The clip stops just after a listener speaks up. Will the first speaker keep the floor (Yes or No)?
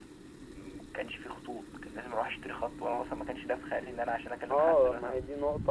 No